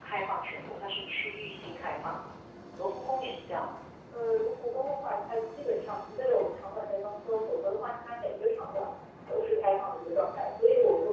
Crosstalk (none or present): none